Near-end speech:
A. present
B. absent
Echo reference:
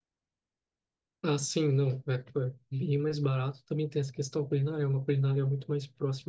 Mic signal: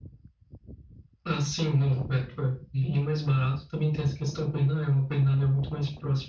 B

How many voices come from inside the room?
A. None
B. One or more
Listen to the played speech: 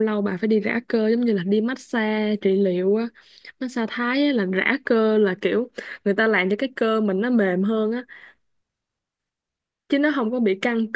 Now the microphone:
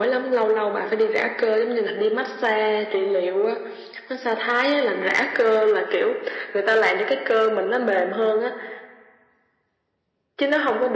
A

